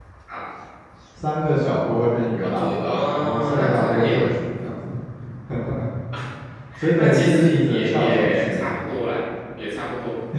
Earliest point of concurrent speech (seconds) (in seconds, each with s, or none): 2.4 s